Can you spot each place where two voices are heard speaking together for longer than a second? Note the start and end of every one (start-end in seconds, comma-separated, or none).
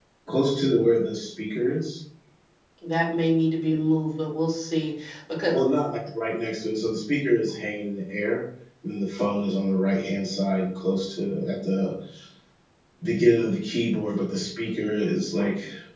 none